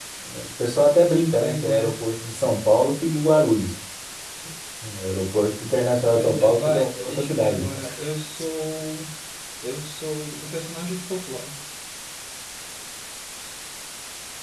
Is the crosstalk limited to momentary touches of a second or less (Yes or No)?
No